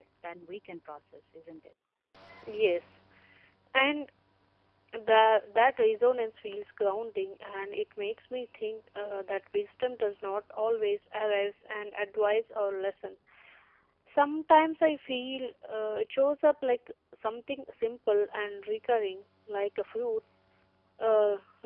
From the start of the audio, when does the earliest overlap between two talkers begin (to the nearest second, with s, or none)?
none